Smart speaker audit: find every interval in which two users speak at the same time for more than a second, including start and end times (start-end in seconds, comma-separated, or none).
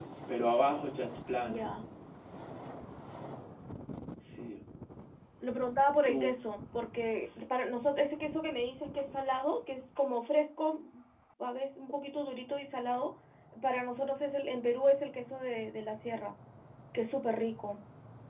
none